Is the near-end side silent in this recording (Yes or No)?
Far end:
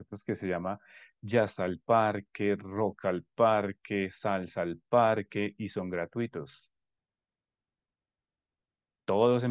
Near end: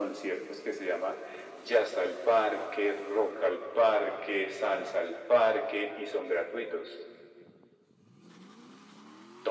Yes